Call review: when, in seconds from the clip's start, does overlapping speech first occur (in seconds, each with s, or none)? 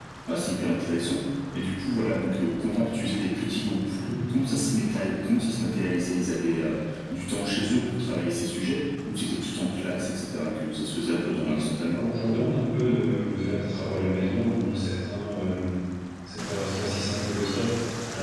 none